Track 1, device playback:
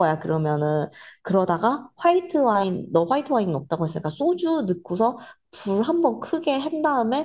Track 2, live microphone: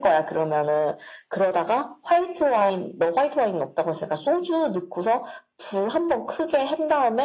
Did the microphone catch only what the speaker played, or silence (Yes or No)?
Yes